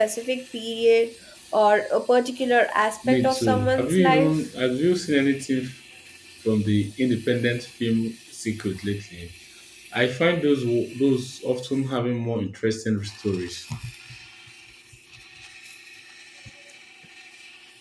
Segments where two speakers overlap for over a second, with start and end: 3.1-4.3

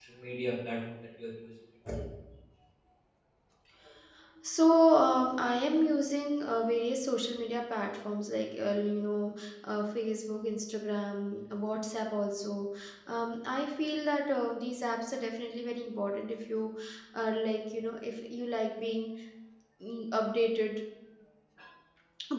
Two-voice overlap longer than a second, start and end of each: none

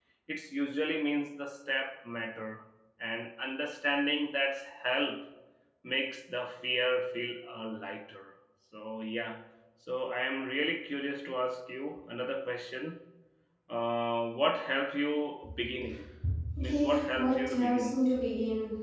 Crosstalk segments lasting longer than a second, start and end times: 16.6-18.1

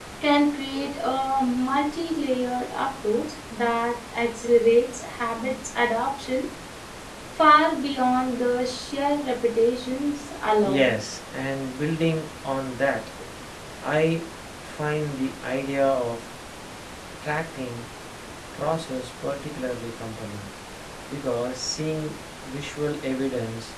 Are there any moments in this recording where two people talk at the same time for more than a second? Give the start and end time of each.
none

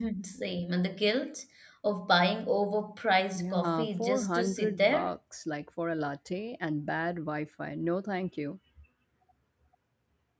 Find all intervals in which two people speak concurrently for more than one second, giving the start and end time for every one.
3.3-5.1

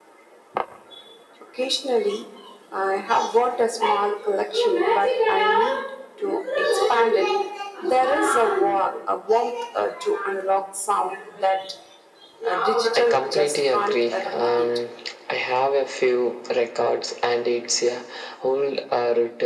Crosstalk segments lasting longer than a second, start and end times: 13.0-14.7

